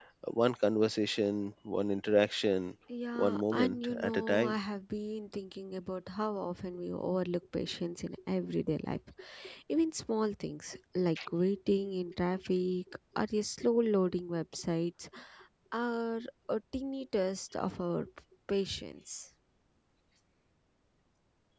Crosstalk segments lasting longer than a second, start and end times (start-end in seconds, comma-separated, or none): 3.1-4.6